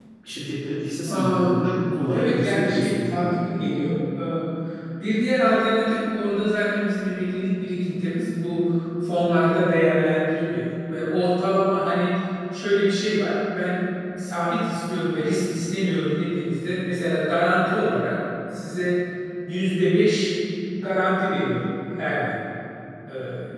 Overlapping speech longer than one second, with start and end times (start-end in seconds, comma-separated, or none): 2.1-3.3